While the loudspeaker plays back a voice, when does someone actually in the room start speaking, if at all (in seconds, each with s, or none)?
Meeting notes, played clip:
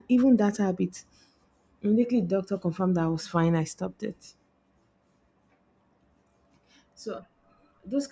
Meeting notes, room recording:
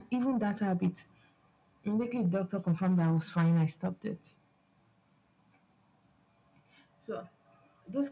none